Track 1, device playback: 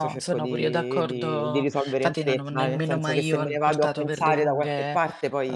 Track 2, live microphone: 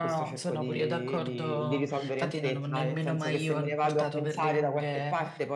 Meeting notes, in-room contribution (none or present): none